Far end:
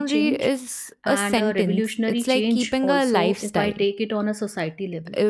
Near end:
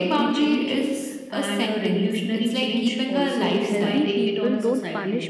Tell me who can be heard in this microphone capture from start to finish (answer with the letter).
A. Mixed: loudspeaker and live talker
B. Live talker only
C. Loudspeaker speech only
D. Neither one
A